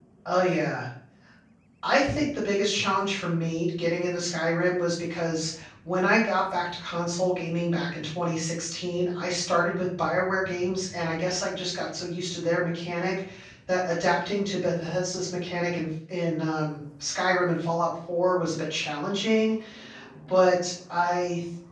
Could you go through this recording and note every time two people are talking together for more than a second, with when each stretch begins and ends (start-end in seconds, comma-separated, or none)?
none